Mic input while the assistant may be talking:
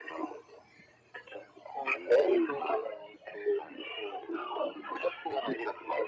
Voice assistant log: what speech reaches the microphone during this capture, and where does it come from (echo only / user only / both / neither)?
echo only